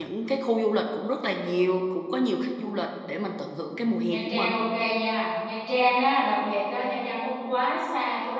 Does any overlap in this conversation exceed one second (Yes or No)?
No